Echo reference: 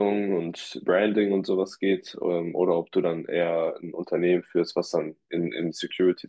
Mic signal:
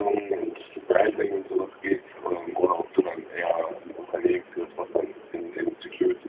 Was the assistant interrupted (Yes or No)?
No